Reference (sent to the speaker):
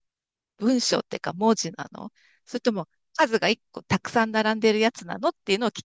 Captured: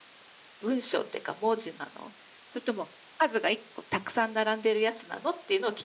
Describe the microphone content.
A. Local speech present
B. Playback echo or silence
B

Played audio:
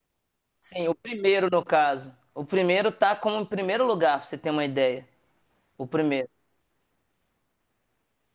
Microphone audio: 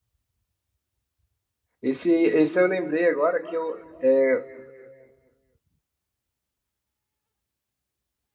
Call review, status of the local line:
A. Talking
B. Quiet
A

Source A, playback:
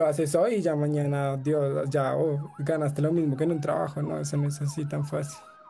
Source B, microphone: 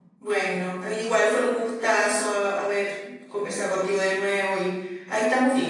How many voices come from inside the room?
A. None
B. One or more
B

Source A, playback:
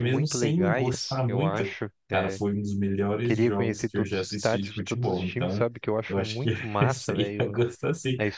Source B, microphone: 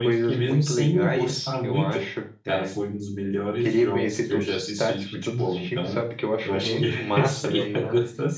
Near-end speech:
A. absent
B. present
B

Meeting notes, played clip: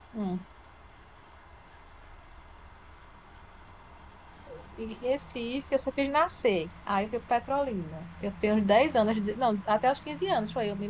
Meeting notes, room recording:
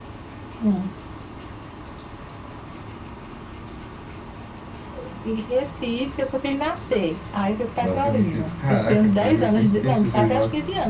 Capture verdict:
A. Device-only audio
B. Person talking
B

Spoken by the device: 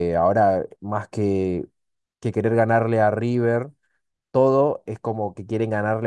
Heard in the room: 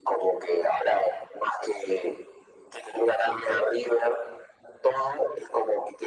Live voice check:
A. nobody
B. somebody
A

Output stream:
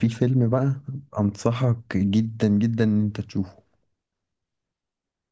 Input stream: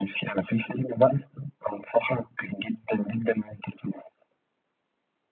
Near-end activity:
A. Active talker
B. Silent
B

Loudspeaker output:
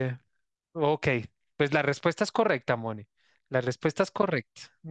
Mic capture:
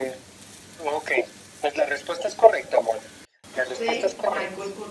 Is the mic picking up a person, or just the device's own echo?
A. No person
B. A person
B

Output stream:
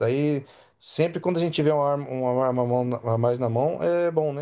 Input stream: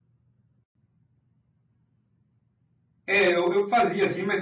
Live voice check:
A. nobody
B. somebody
B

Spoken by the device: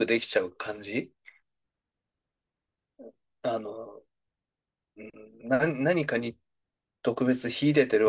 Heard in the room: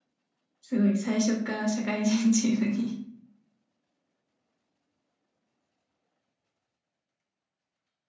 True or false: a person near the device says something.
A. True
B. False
A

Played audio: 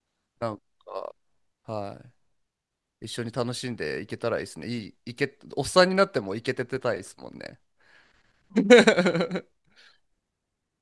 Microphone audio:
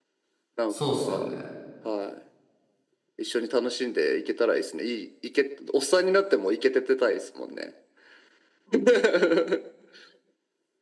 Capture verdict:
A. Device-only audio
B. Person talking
B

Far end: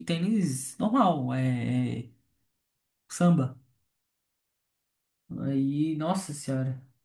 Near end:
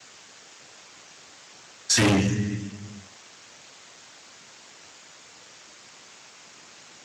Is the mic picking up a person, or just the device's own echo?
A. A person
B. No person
A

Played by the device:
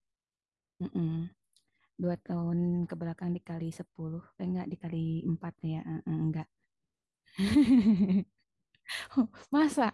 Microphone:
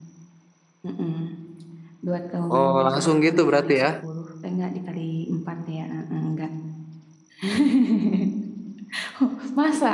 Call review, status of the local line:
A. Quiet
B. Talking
B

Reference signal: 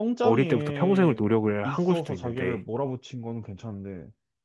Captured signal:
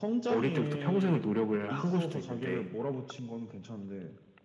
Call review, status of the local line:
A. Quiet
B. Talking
A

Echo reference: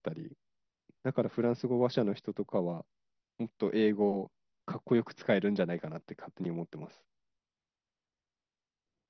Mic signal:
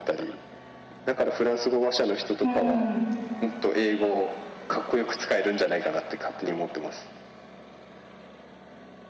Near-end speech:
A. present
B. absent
A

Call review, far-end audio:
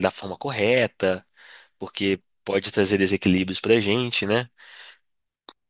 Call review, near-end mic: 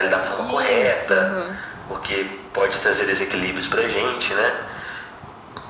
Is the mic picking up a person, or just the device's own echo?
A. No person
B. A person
B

